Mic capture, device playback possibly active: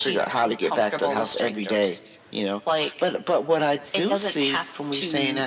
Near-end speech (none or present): none